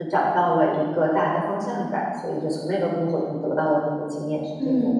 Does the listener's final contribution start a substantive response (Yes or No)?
Yes